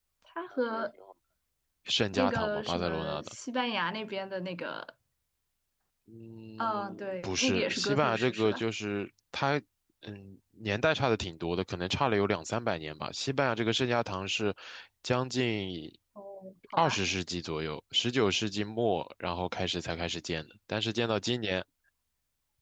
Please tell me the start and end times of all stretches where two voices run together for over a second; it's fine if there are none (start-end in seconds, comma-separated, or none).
2.1-3.3, 6.6-8.6